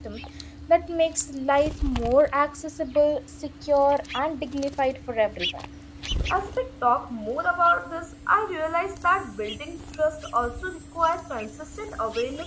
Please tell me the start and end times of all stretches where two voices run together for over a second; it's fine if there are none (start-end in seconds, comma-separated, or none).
none